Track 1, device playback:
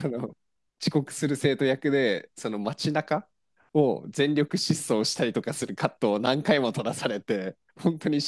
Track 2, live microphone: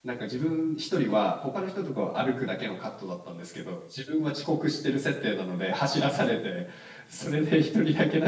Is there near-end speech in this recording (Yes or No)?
Yes